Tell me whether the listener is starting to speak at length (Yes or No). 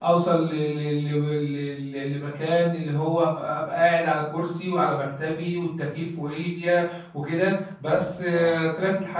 No